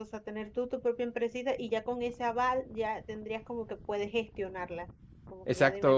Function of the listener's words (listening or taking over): taking over